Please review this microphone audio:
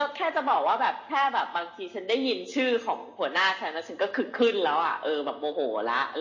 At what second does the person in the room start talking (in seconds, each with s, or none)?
none